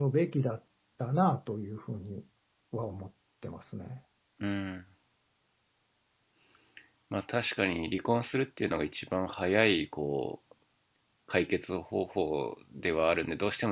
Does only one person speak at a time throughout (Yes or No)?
Yes